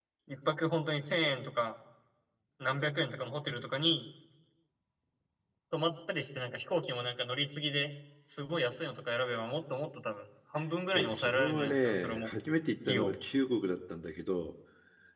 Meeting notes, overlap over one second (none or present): present